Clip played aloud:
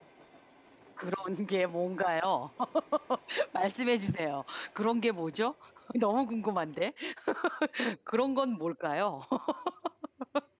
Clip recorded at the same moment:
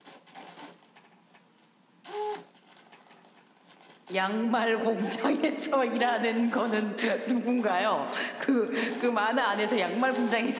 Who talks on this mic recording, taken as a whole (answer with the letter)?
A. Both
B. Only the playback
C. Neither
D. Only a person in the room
D